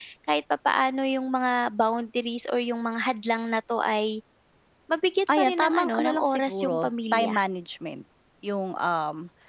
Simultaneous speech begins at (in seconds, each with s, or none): 5.4 s